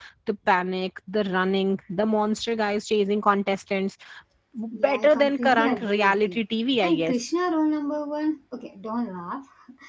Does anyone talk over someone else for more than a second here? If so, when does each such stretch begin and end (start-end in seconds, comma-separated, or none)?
4.8-6.4